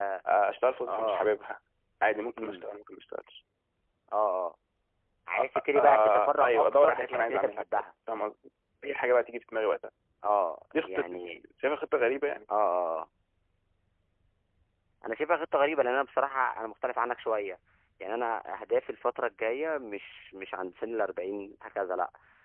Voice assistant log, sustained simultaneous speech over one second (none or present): present